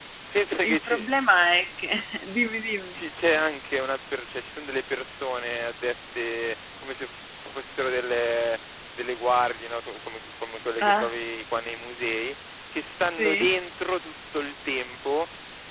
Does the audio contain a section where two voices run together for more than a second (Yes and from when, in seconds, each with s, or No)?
No